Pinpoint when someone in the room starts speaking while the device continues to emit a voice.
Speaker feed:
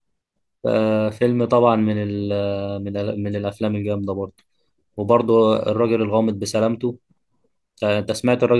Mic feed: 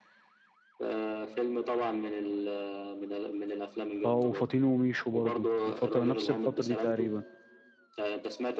4.0 s

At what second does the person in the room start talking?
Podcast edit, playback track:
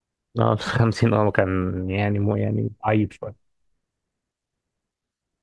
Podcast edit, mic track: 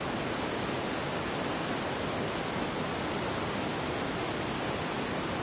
none

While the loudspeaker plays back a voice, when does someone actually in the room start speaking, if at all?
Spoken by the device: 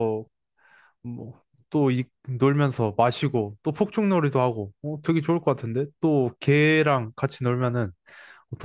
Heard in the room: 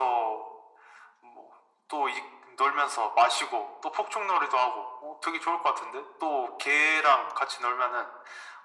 none

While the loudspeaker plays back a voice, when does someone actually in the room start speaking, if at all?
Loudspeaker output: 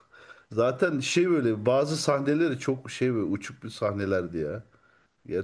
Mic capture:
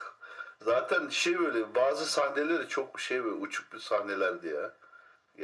none

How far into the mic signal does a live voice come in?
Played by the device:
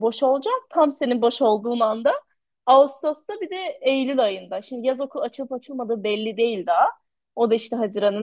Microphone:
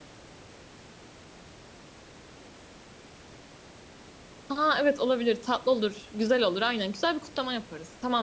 4.5 s

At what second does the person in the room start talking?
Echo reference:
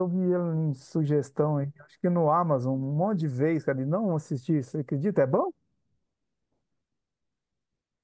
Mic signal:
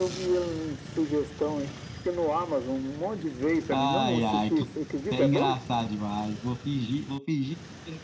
3.7 s

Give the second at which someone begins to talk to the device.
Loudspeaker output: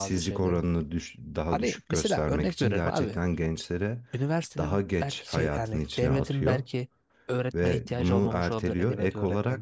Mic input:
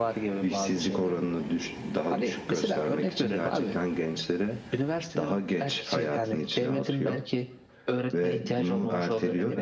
none

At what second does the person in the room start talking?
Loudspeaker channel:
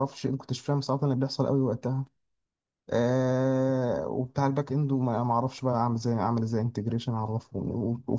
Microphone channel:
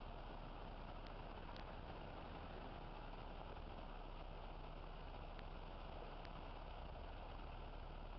none

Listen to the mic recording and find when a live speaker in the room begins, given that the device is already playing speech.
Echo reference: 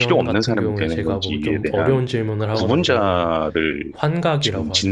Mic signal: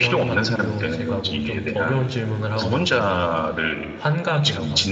none

